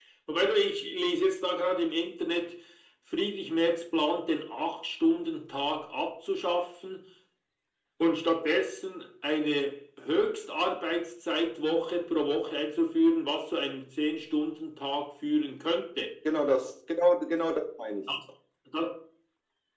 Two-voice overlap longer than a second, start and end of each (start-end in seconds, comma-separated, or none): none